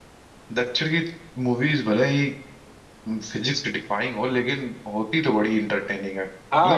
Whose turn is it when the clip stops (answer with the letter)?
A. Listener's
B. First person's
A